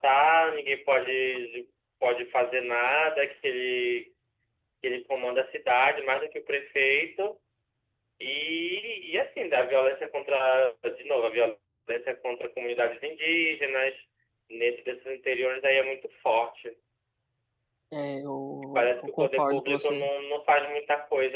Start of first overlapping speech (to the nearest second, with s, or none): 19 s